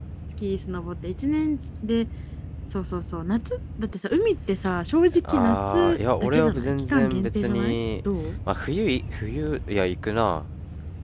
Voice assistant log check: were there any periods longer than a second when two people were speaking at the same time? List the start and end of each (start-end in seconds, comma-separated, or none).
5.3-7.8